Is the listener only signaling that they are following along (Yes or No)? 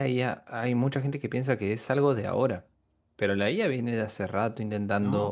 Yes